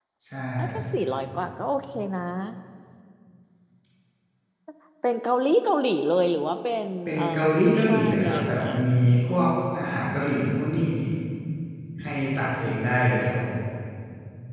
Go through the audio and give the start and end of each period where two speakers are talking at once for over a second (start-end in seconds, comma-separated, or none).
7.0-8.8